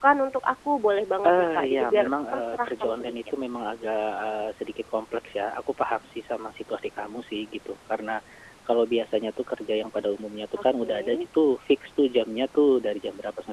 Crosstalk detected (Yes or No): Yes